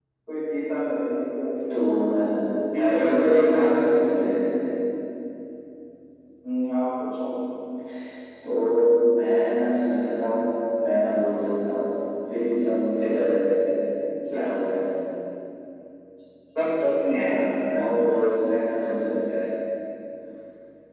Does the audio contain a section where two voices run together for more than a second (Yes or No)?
Yes